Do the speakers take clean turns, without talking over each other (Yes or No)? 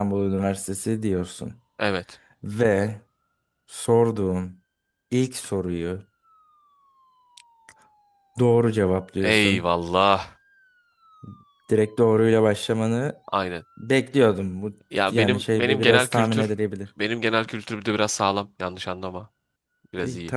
No